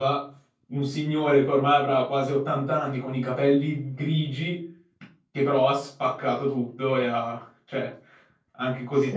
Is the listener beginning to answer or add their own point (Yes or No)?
Yes